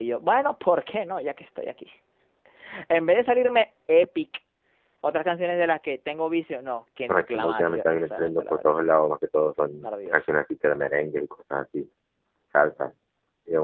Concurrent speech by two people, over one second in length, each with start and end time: 7.1-8.8

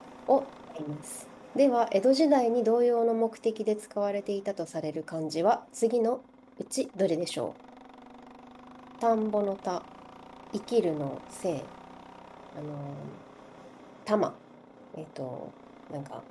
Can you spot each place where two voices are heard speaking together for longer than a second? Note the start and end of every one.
none

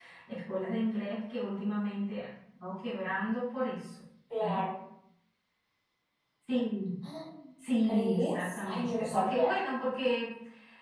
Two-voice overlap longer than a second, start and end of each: 7.8-9.3

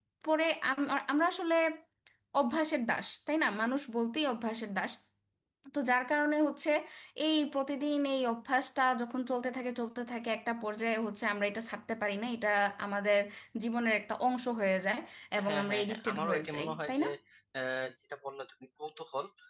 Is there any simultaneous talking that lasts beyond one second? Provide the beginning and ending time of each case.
15.5-17.1

